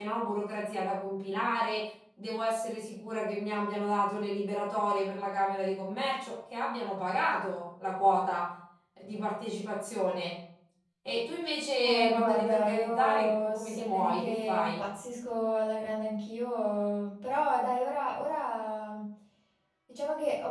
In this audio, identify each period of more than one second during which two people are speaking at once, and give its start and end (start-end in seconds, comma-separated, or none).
11.8-14.8